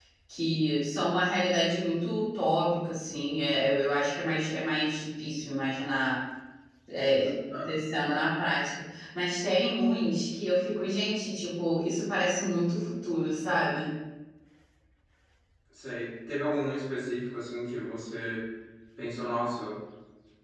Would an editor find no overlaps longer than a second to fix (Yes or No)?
Yes